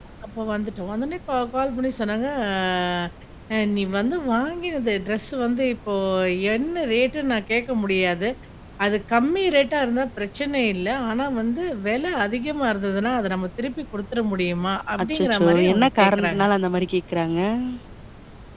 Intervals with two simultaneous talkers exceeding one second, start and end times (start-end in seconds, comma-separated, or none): 15.1-16.4